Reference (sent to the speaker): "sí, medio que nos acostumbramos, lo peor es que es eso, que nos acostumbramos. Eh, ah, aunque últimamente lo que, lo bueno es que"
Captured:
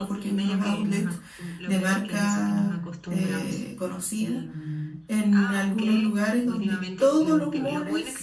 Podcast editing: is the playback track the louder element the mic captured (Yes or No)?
No